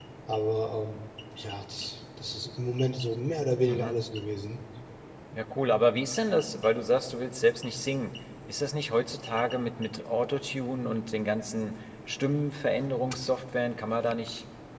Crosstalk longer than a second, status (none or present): none